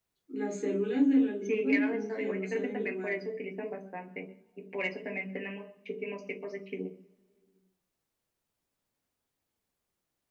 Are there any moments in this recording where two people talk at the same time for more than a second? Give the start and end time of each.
1.4-3.2

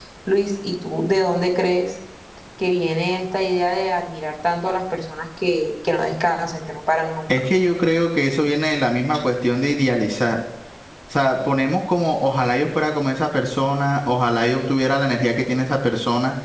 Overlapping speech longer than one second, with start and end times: none

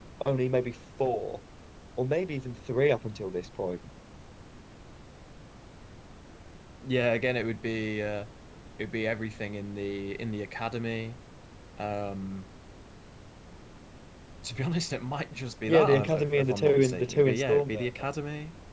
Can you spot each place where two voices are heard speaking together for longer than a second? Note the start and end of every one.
15.7-17.9

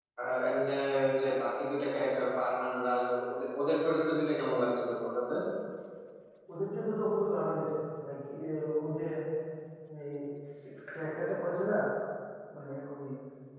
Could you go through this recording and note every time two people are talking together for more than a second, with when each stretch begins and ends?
none

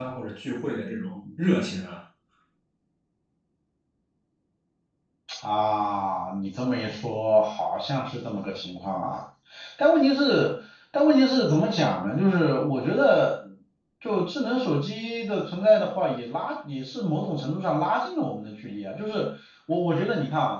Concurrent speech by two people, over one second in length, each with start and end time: none

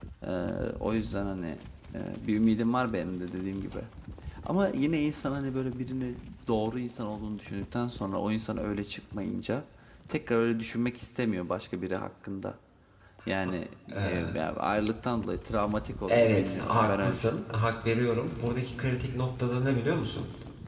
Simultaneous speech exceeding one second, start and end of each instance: 16.1-17.4

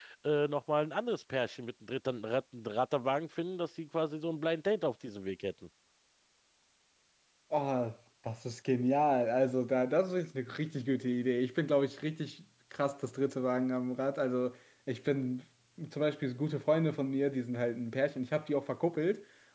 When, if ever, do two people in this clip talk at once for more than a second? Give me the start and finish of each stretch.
none

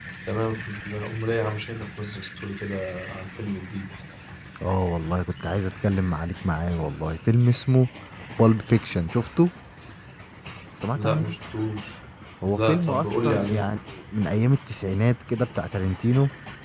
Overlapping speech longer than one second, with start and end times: 12.4-13.7

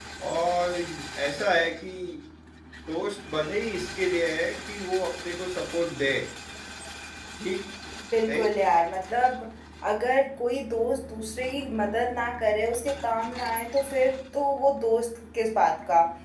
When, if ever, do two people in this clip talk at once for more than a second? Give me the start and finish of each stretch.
none

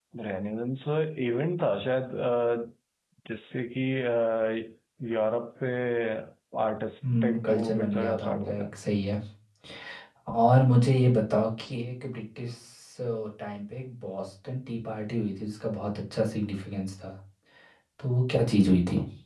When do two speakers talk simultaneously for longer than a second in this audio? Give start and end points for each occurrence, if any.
7.2-8.7

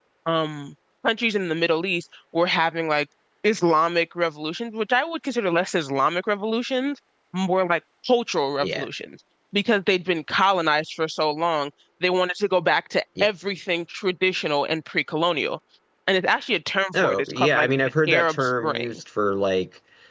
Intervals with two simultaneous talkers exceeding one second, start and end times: 17.0-19.0

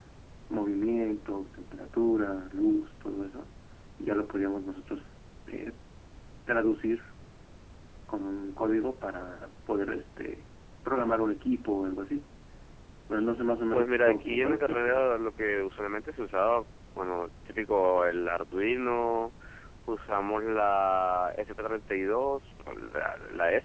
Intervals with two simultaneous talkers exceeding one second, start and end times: 13.7-15.0

